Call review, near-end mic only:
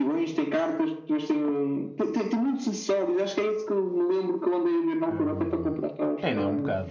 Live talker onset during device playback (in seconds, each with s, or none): 5.1 s